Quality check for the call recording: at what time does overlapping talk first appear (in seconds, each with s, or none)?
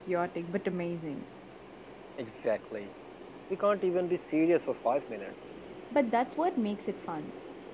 none